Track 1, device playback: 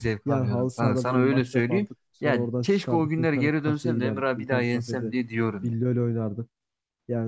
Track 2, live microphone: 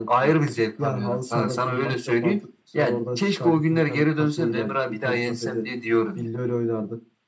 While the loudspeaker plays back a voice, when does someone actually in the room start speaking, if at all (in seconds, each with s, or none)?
none